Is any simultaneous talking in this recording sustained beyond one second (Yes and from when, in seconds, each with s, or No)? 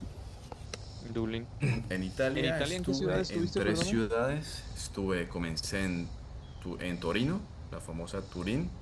Yes, from 2.4 s